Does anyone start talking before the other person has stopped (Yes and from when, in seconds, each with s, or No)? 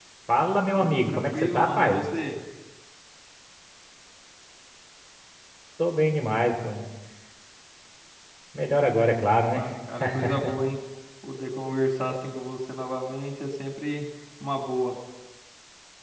Yes, from 0.8 s